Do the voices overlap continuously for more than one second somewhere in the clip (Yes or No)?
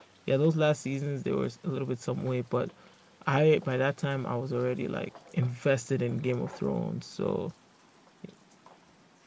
No